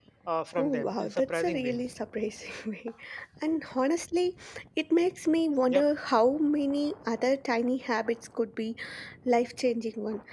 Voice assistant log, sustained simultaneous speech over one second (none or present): present